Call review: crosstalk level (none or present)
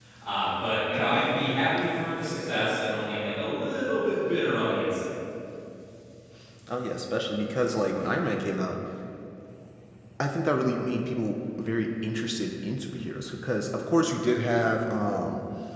none